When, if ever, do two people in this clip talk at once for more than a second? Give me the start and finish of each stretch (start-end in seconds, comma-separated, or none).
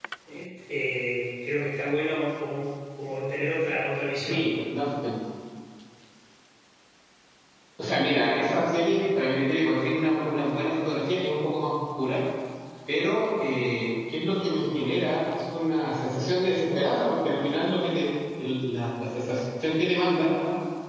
none